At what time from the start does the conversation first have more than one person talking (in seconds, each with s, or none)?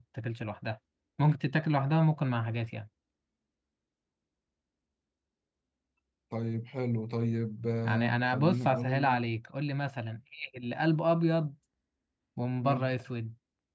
7.8 s